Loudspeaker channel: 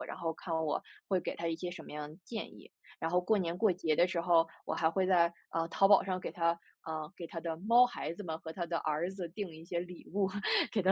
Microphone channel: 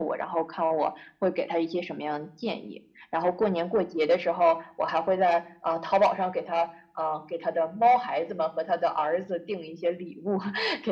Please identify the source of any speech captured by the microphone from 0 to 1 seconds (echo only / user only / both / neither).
echo only